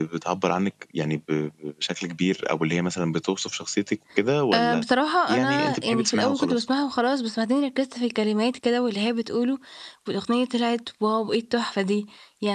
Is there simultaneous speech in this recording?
Yes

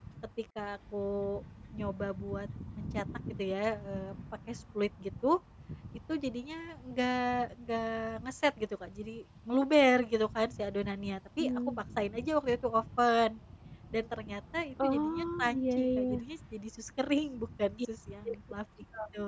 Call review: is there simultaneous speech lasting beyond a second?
Yes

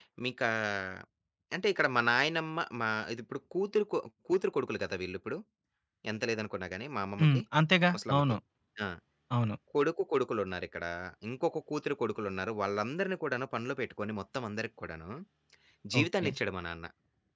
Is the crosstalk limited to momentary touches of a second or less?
Yes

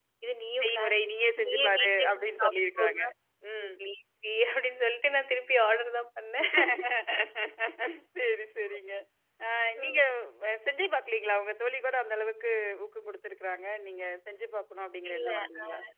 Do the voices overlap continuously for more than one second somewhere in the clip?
Yes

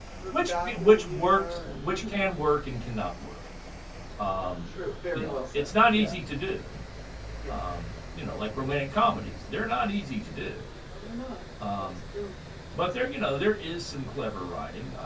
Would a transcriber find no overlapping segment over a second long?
No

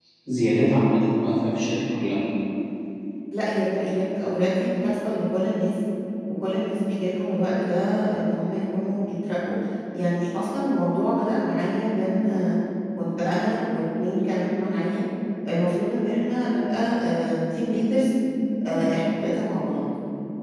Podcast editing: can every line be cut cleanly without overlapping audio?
Yes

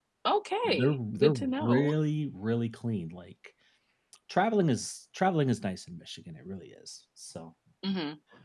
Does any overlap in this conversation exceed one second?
Yes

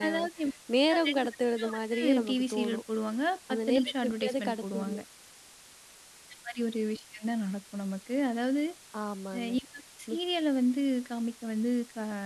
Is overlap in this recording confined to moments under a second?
No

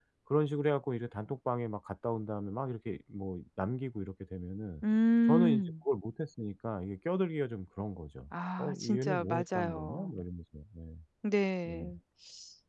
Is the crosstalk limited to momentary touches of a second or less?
No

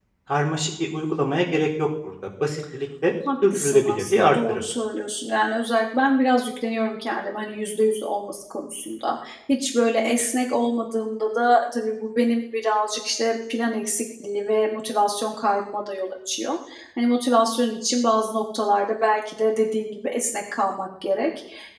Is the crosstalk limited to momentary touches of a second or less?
No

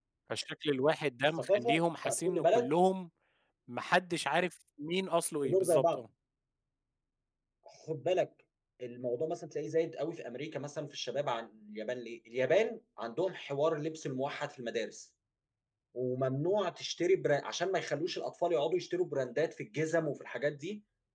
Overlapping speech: Yes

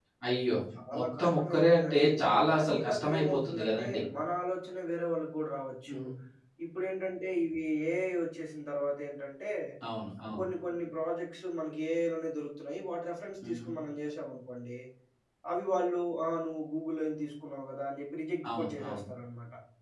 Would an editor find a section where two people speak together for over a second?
Yes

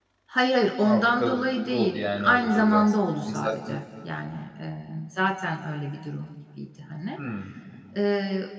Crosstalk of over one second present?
Yes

